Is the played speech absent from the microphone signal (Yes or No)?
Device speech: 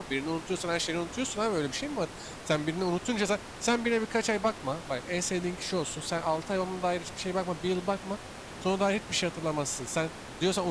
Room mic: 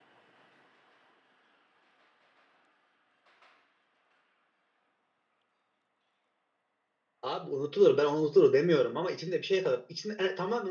Yes